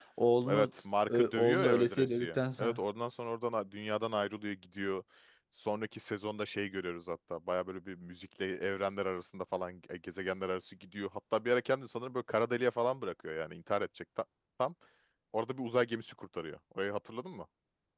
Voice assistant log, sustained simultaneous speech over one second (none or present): present